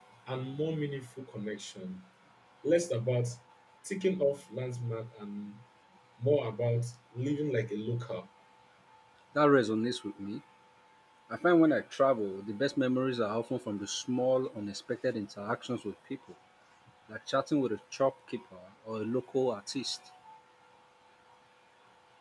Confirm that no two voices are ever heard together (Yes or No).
Yes